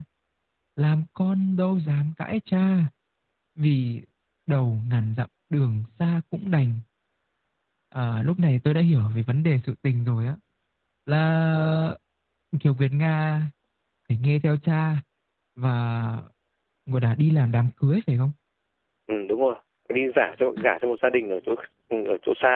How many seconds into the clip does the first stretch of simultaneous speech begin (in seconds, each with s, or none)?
none